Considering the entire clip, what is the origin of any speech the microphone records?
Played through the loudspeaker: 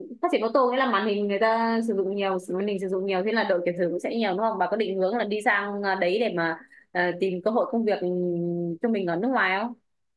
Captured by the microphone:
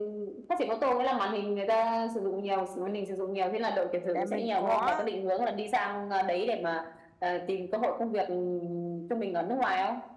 both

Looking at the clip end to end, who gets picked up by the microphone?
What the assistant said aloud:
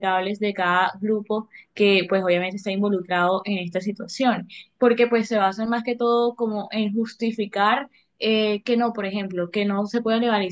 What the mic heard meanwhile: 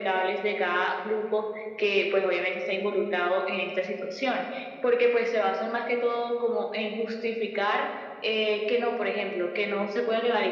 echo only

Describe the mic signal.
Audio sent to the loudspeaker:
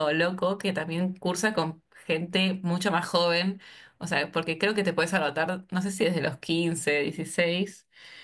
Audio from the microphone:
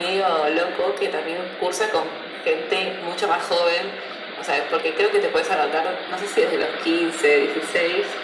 echo only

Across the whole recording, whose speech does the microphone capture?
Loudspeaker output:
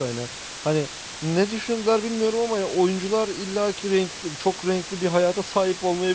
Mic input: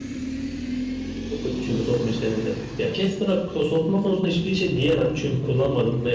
user only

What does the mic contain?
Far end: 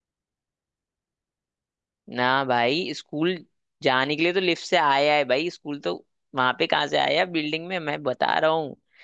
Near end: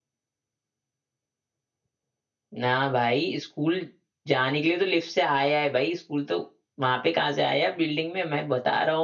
echo only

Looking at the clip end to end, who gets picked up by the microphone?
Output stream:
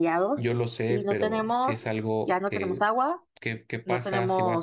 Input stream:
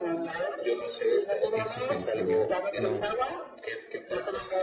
both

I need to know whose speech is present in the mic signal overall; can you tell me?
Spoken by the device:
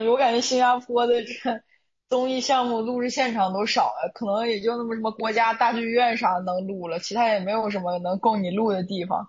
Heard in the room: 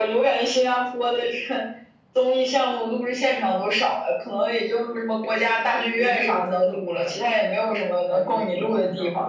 both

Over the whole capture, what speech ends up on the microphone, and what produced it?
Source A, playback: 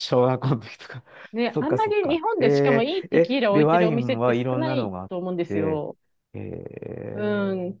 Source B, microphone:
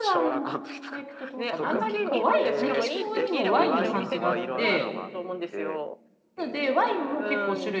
both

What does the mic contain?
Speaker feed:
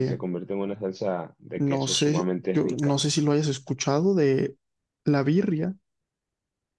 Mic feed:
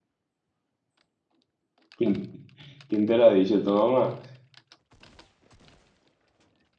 user only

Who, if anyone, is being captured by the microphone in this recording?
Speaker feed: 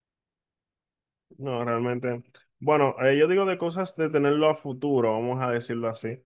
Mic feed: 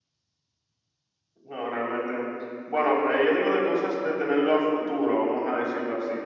echo only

